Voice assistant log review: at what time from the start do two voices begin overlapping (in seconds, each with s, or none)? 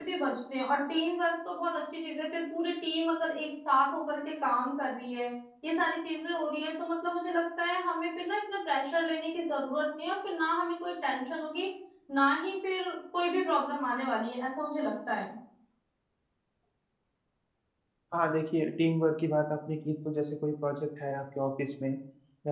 none